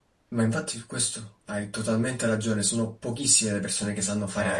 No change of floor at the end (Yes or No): Yes